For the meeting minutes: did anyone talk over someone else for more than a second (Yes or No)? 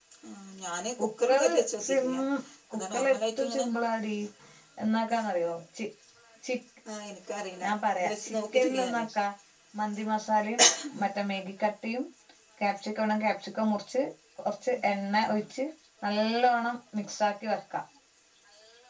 Yes